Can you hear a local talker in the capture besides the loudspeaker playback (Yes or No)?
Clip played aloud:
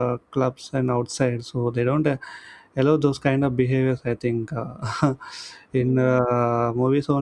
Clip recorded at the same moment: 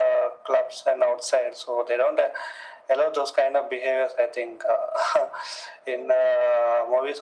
No